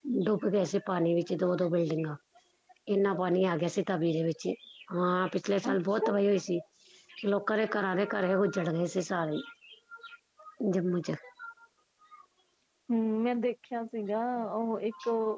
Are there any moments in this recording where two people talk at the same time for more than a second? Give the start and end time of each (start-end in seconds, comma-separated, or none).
none